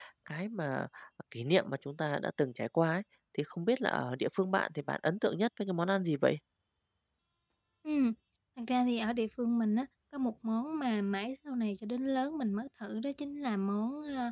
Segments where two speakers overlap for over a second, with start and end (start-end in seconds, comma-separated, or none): none